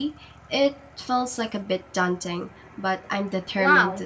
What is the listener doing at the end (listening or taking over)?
taking over